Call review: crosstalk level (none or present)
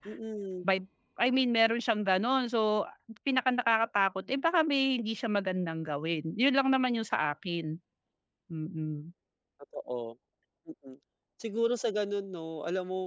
none